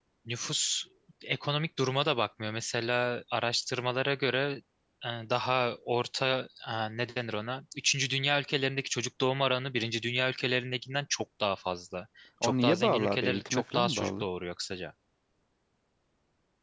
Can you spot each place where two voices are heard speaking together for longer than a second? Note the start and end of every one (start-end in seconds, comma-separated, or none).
12.4-14.2